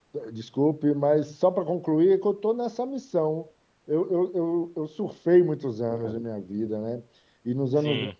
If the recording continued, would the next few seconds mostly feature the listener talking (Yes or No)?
No